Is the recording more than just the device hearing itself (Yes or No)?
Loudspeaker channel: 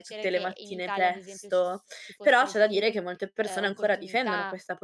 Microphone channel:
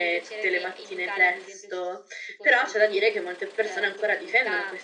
No